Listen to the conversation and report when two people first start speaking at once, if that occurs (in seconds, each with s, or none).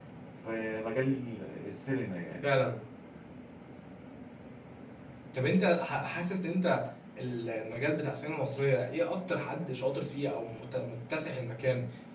none